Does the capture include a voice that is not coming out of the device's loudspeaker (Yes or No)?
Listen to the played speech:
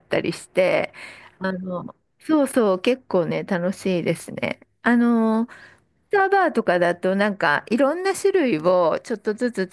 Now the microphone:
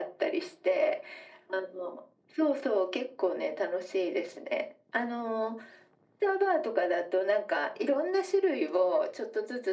No